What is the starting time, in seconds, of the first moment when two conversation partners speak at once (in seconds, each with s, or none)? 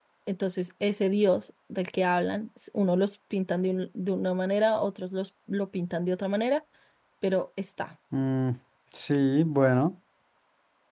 none